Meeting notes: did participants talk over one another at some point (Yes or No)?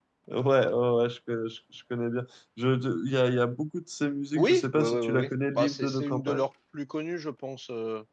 Yes